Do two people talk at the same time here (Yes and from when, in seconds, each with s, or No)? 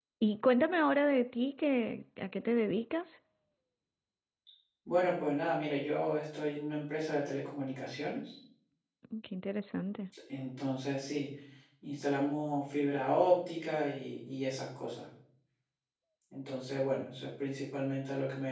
No